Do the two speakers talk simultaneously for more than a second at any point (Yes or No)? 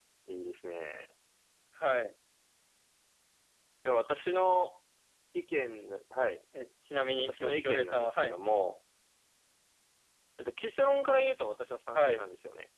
Yes